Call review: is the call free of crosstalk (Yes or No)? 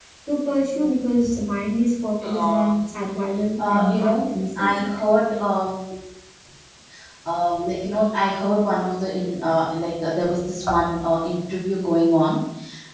No